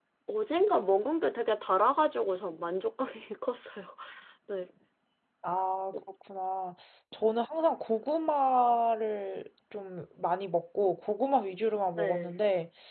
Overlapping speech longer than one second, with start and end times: none

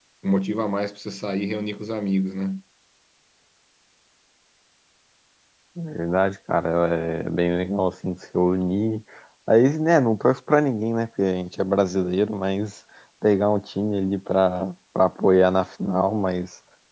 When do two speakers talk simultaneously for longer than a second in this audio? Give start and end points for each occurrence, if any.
none

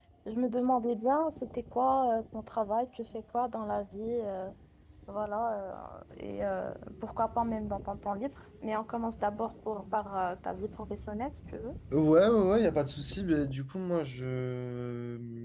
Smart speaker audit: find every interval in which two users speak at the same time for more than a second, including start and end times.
none

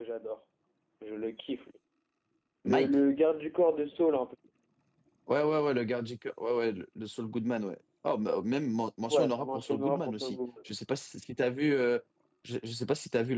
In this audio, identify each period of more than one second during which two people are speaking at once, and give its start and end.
9.1-10.4

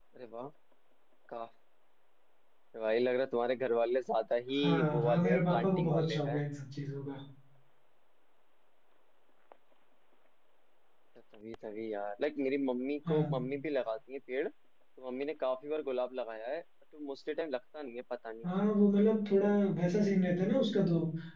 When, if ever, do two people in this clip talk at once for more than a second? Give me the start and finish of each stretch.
4.6-6.4

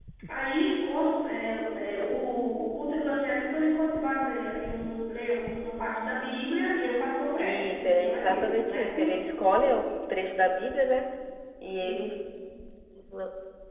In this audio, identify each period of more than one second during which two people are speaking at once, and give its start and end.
7.7-9.2

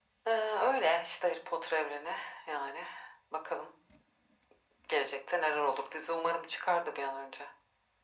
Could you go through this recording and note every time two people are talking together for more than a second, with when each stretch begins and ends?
none

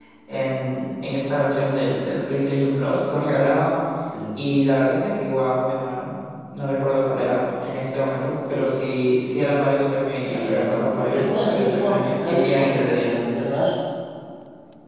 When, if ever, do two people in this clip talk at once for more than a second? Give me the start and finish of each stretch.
10.2-13.2

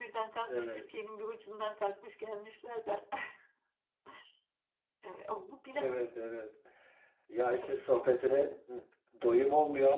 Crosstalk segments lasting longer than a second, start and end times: none

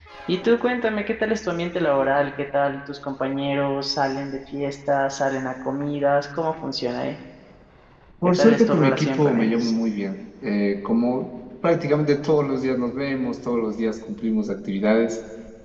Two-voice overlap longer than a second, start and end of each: 8.2-9.7

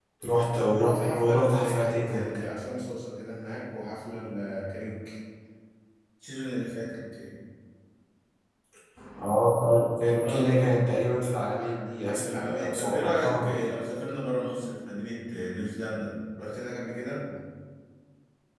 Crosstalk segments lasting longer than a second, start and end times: 0.8-2.4, 12.1-13.5

